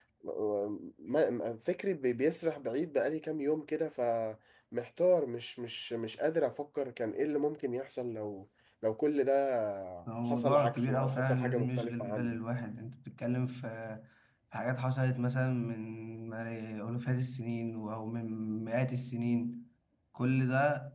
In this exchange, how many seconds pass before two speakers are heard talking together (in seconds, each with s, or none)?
10.3 s